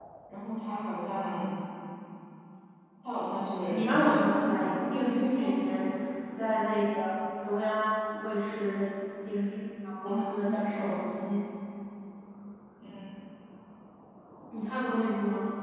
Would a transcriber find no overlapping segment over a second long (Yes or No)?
No